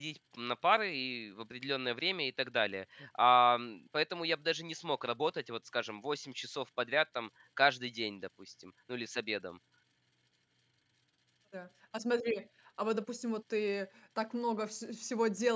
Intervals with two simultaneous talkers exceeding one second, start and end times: none

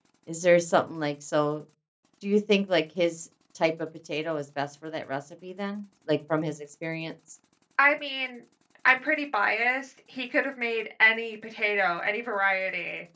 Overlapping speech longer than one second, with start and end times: none

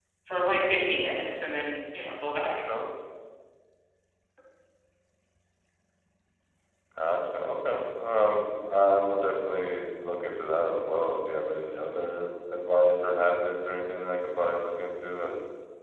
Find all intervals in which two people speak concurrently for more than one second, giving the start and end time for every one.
none

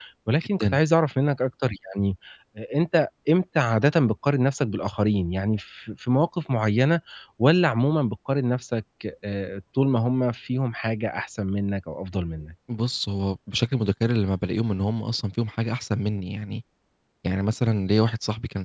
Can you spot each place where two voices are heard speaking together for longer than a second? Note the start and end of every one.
none

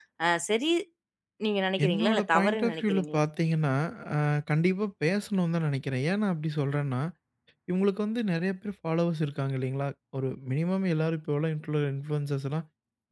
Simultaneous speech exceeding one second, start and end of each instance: 1.9-3.2

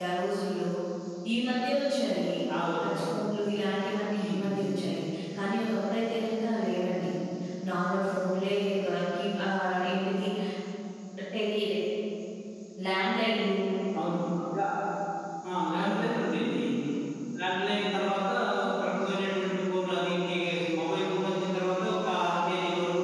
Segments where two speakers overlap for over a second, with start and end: none

